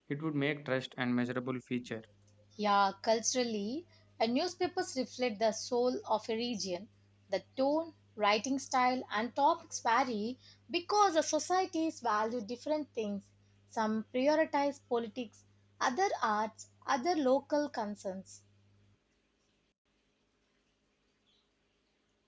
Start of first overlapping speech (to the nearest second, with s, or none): none